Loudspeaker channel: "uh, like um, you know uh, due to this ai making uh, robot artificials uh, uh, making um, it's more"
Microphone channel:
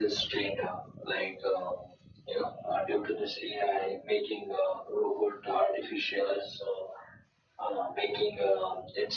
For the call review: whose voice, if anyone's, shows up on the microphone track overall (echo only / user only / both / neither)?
echo only